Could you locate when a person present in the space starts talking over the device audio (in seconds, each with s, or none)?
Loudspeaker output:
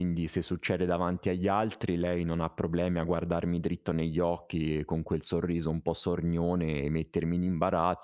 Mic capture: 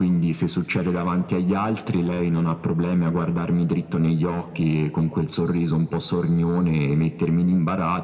none